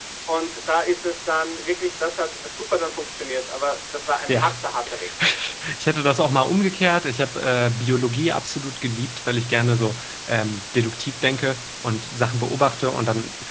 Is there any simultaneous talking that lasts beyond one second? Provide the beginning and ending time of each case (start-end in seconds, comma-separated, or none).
none